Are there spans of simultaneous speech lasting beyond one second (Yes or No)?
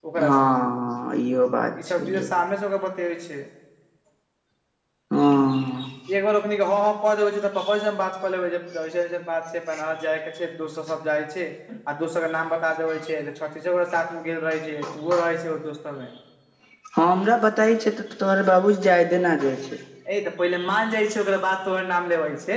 No